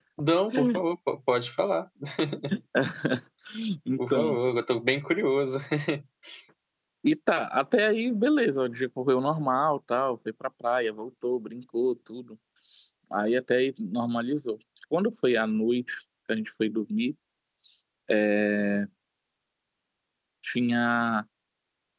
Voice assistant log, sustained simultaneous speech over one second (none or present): none